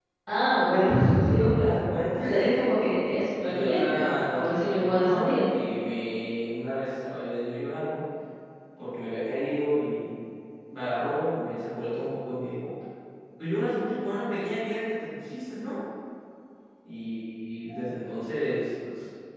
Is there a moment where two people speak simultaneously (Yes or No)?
Yes